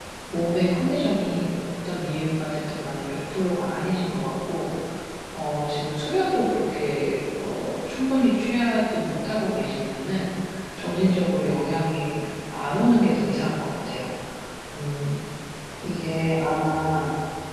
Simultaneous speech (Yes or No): Yes